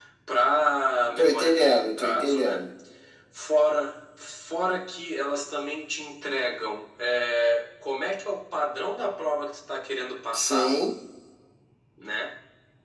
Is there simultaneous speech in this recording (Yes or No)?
Yes